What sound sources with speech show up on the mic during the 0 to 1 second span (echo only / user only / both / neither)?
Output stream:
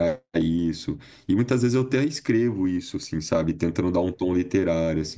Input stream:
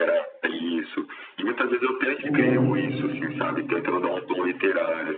echo only